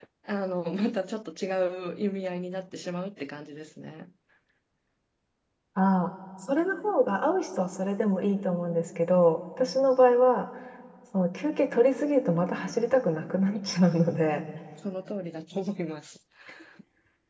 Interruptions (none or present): none